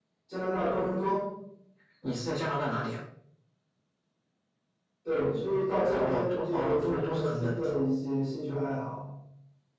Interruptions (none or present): present